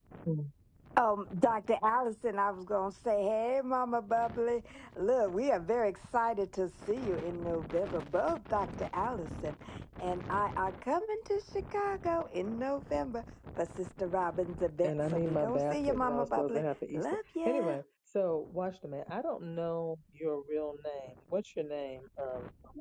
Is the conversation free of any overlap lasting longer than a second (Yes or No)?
No